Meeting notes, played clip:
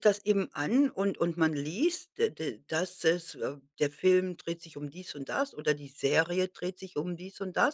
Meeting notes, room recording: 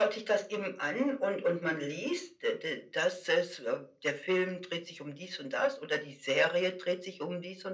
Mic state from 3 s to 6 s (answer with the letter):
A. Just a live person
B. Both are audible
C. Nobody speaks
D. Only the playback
D